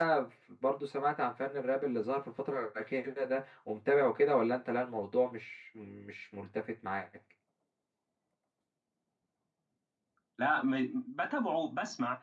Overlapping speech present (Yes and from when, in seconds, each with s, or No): No